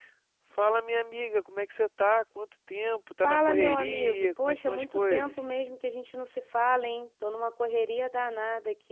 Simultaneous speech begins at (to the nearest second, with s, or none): 3 s